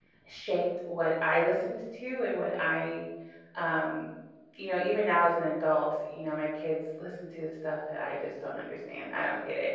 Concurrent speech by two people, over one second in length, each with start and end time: none

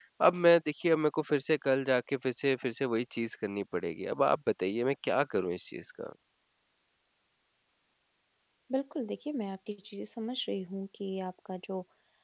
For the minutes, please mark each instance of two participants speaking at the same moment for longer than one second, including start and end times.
none

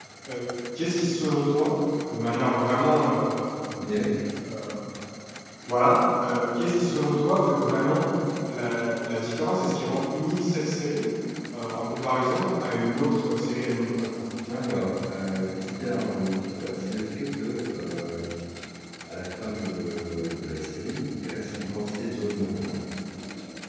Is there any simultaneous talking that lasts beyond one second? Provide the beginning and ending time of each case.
none

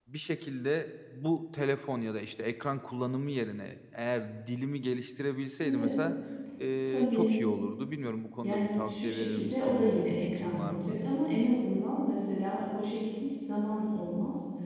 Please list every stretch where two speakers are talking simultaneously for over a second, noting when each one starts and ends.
8.4-11.0

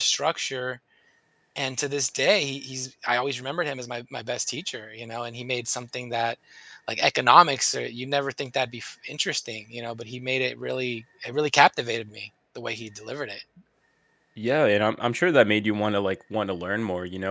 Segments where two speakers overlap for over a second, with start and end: none

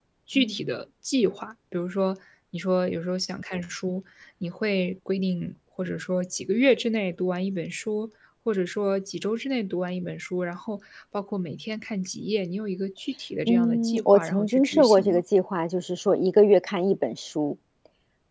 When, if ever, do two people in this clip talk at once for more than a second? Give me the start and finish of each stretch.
13.5-15.2

